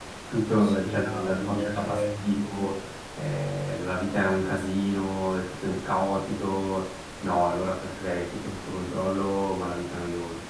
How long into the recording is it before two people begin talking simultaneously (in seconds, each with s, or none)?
0.5 s